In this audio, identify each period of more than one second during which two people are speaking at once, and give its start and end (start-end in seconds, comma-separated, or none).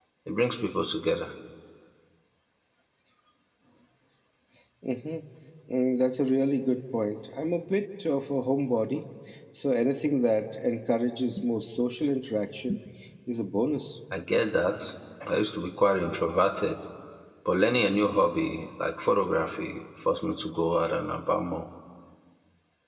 none